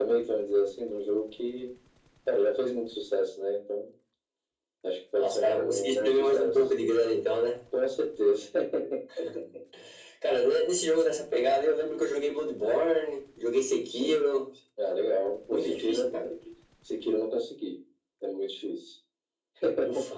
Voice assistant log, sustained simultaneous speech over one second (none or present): present